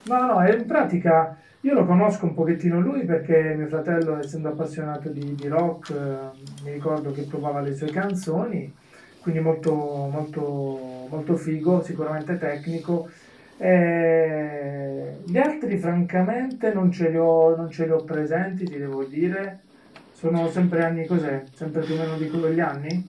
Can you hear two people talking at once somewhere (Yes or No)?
No